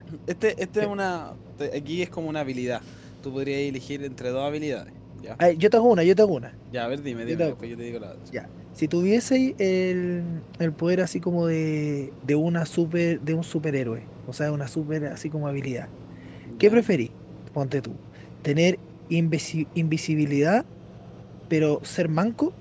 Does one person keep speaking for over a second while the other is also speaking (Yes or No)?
No